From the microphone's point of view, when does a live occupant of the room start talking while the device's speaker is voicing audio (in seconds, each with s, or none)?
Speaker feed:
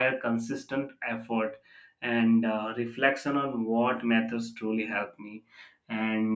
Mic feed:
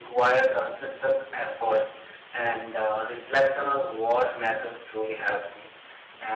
none